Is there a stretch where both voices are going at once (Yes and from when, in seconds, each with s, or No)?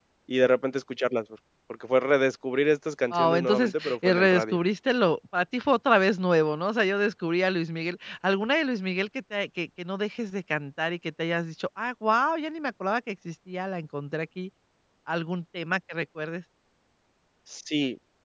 Yes, from 3.1 s